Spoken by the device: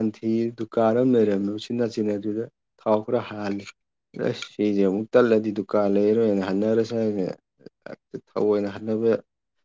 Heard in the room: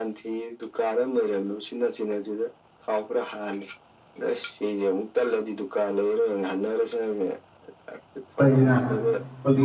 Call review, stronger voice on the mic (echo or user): user